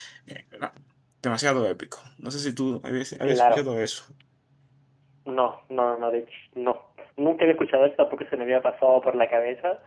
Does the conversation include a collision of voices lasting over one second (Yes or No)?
No